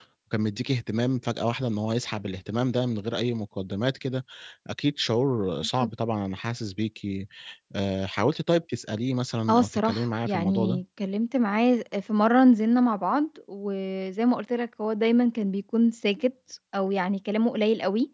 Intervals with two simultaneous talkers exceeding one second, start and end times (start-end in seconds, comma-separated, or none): 9.5-10.8